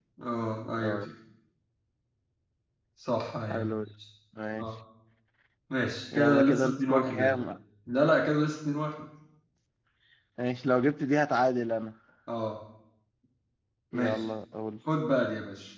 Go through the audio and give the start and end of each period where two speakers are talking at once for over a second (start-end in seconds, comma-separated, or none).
6.1-7.4